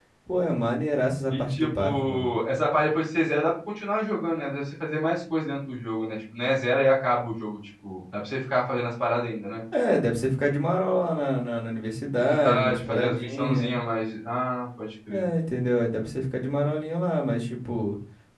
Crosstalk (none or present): present